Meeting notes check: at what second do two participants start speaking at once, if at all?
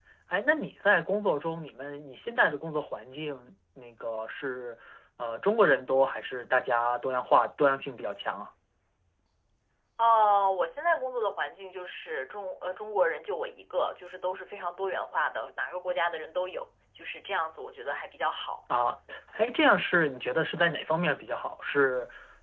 none

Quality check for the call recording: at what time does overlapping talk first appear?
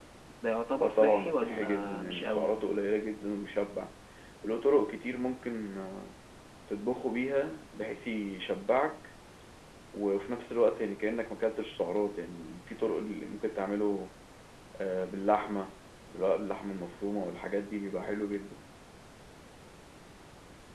1 s

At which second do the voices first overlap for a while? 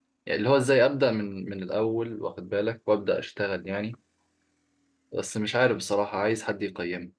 none

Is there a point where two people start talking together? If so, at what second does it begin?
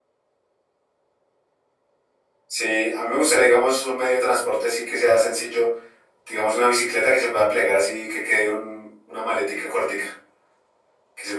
none

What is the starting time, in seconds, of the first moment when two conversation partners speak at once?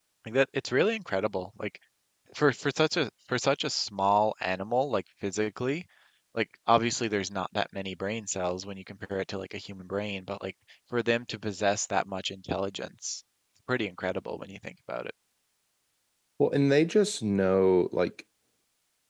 none

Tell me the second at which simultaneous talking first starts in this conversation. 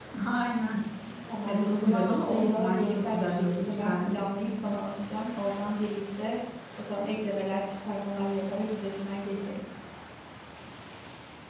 1 s

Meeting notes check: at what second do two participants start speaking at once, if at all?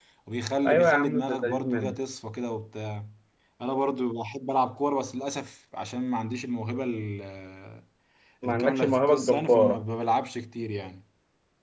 1 s

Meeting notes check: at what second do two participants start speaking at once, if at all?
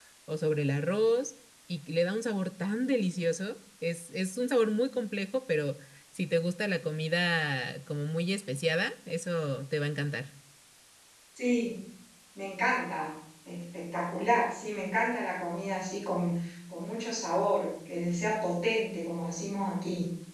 none

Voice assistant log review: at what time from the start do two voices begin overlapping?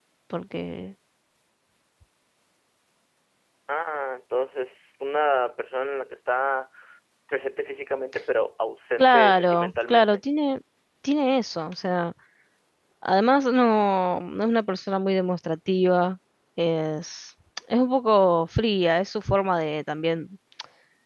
9 s

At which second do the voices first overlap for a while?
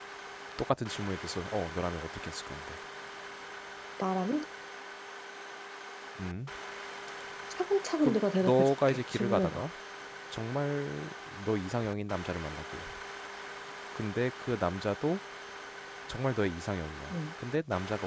8 s

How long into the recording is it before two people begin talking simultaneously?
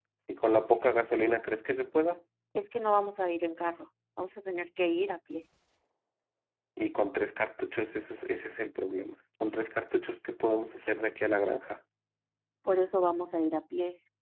none

